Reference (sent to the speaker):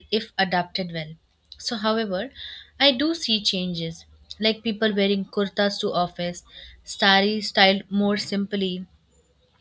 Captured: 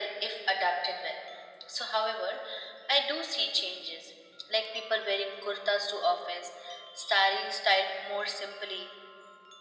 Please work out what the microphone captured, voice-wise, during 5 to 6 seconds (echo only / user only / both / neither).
echo only